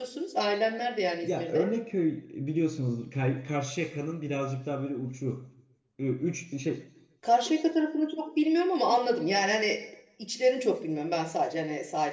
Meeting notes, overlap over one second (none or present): none